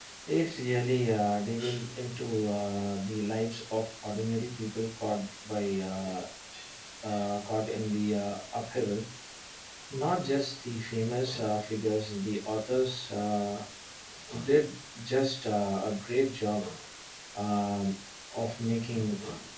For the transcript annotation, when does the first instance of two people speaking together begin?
none

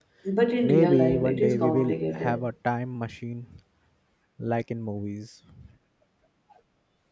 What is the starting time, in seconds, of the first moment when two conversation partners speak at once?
0.6 s

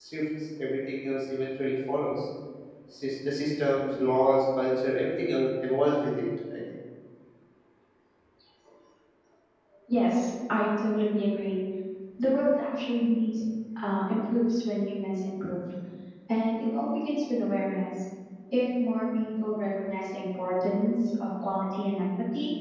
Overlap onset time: none

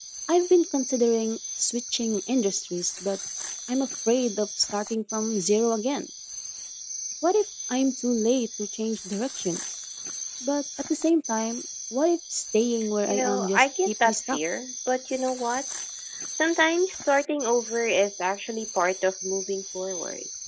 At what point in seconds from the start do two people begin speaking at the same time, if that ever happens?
13.1 s

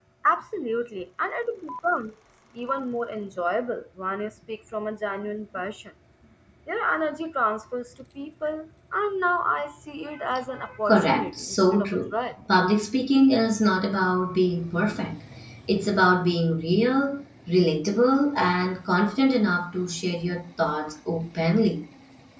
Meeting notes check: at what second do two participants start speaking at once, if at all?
10.9 s

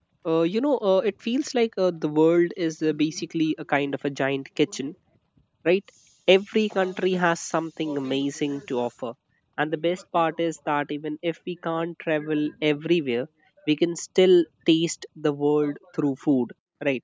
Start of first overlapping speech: none

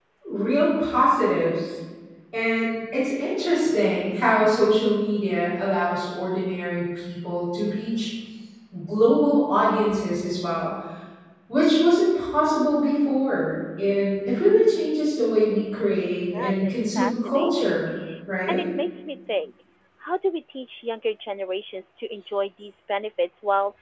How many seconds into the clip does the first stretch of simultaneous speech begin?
16.3 s

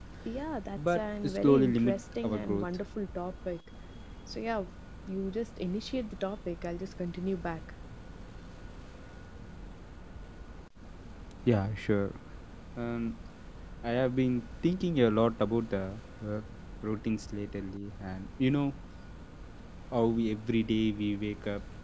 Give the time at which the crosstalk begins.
0.8 s

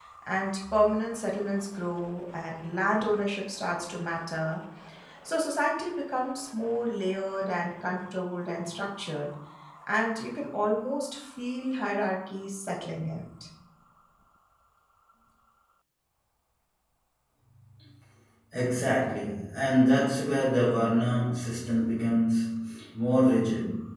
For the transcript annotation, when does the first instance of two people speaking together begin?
none

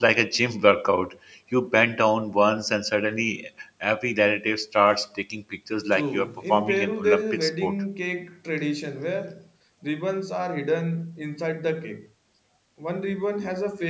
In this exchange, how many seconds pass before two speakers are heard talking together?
5.9 s

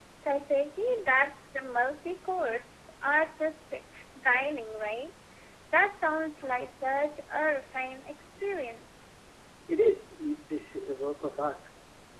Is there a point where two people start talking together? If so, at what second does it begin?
none

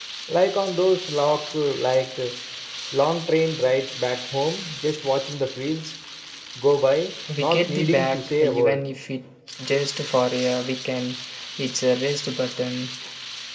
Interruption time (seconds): 7.4 s

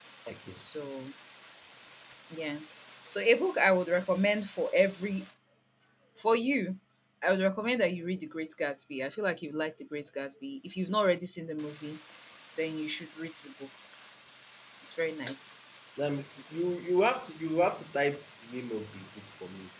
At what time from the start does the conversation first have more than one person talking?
none

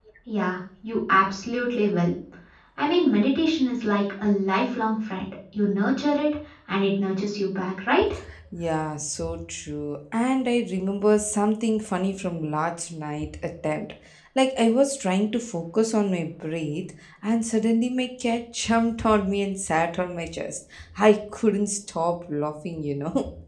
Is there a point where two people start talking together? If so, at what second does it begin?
none

